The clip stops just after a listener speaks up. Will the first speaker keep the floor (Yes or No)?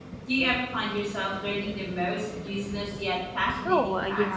No